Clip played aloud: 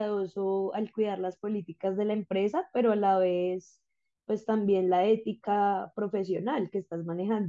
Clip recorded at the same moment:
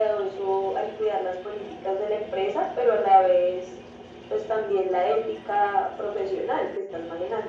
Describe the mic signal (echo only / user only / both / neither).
echo only